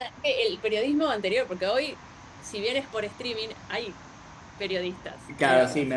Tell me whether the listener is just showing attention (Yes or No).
No